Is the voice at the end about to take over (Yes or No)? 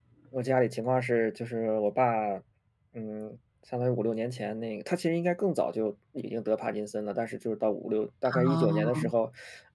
No